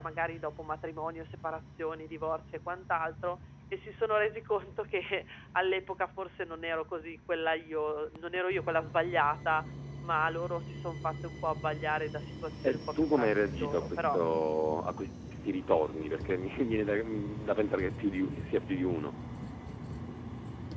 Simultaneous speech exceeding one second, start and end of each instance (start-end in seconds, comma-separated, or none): 12.7-14.2